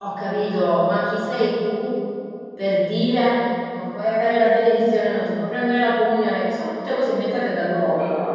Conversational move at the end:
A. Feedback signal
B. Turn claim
A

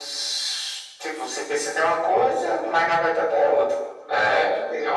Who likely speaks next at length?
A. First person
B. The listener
B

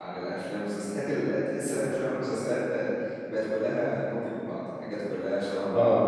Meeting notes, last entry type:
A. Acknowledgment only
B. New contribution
A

